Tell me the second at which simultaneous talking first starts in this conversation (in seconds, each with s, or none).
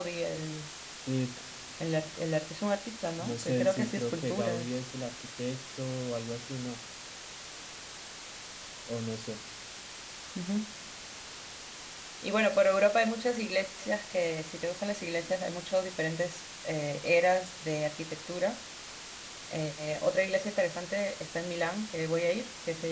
3.2 s